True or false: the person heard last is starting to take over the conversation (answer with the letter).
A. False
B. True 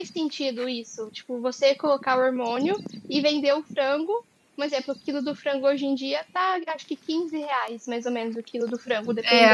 B